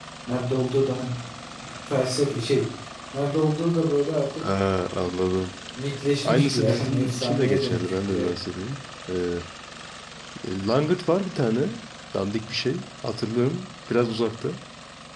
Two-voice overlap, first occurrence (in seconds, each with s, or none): 6.2 s